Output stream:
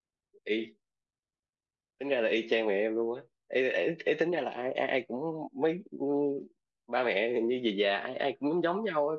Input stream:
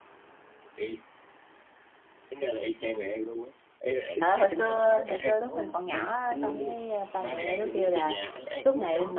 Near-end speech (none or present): present